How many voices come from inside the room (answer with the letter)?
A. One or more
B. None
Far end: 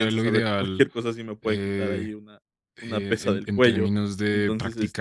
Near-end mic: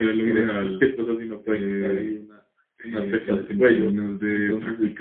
B